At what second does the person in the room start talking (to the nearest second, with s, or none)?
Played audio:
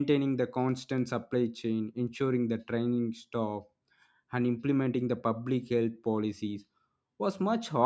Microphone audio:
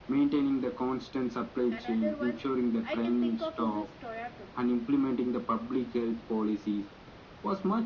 2 s